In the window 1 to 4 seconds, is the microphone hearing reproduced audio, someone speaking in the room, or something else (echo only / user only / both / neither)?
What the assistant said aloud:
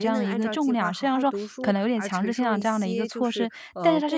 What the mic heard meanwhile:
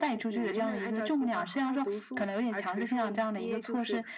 echo only